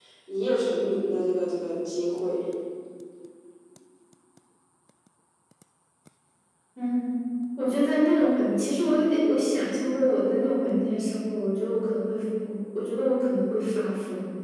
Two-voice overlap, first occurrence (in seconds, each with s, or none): none